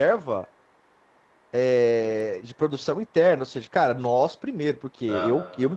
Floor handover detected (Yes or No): No